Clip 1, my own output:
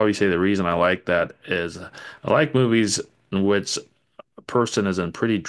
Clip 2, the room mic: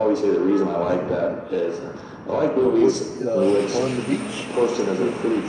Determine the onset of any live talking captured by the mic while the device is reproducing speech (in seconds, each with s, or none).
2.6 s